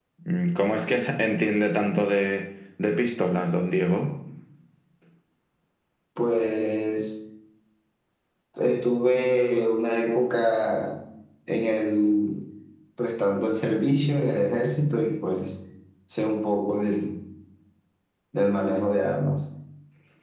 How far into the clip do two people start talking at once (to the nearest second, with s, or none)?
none